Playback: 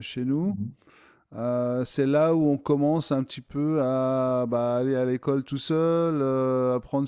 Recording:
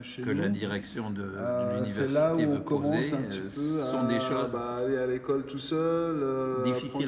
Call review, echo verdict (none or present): present